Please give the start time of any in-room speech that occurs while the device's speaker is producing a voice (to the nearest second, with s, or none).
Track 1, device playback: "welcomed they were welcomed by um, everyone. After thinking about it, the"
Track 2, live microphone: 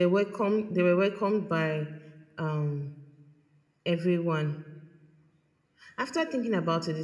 none